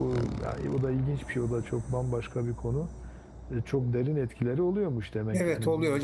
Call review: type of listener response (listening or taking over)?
taking over